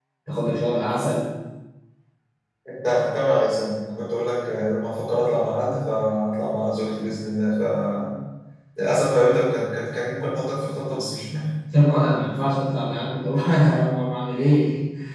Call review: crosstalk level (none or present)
none